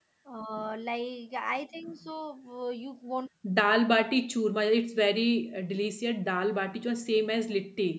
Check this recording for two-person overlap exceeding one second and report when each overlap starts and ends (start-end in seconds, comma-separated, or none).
none